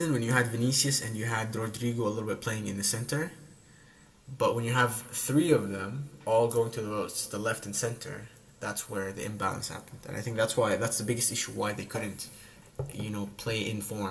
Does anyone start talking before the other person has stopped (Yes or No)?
No